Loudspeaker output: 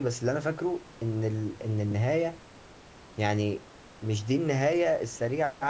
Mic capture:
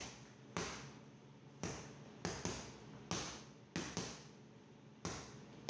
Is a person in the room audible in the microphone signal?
No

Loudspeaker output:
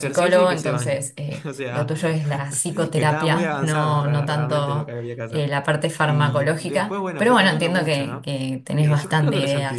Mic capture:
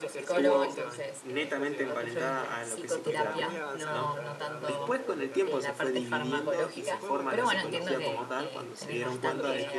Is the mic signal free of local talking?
No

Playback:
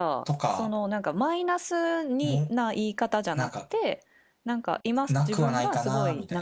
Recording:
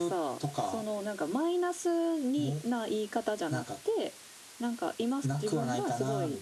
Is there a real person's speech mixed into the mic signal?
No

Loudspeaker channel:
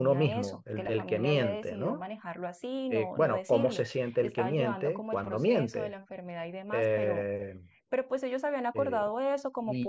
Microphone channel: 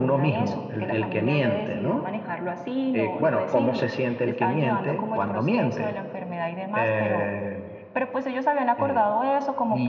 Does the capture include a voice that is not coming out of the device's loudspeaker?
No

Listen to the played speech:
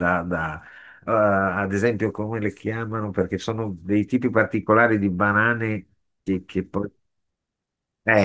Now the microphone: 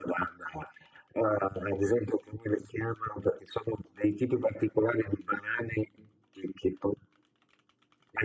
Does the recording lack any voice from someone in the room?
Yes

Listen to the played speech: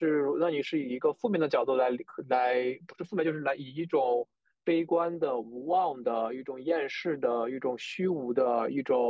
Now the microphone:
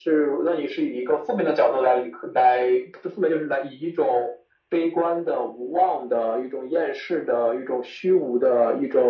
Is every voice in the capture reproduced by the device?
Yes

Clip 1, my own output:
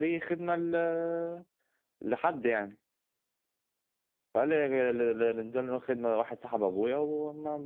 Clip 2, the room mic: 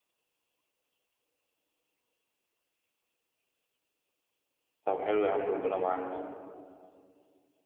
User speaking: Yes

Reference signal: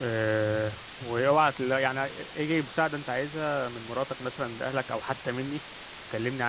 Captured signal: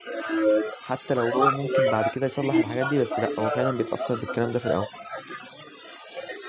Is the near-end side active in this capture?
Yes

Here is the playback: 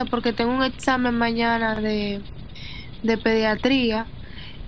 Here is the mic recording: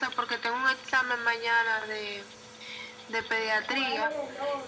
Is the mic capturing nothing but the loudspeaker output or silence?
No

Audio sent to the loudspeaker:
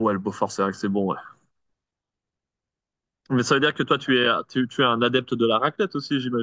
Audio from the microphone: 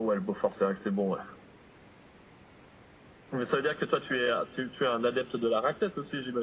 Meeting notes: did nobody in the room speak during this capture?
Yes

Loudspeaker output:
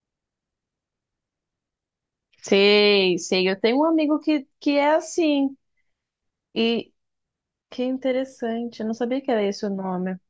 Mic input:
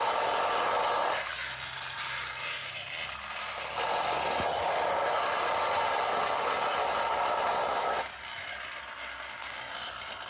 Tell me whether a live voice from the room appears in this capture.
No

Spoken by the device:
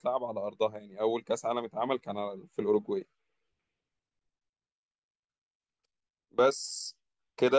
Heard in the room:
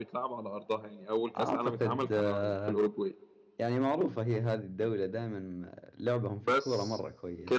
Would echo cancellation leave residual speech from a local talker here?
Yes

